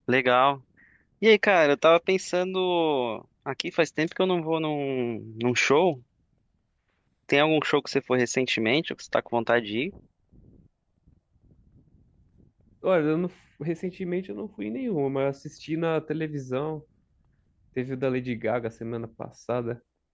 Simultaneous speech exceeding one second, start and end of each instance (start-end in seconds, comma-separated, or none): none